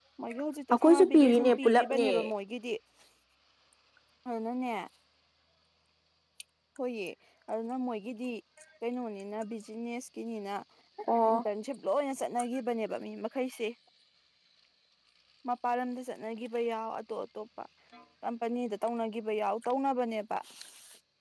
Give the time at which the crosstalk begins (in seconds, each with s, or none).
0.7 s